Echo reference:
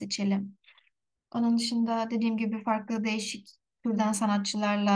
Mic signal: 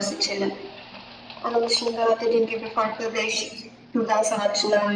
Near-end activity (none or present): none